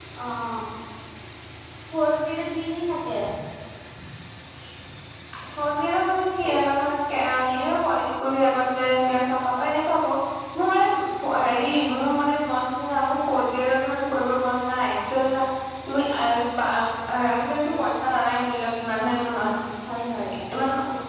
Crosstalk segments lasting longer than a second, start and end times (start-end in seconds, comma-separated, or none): none